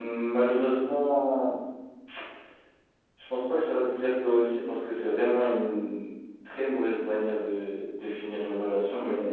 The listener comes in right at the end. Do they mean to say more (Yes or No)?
Yes